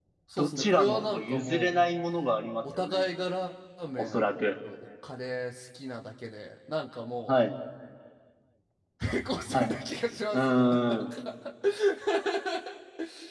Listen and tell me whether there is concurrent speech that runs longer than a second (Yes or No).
Yes